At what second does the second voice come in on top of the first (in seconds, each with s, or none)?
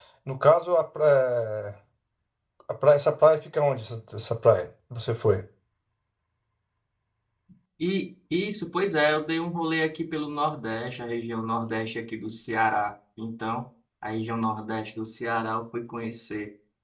none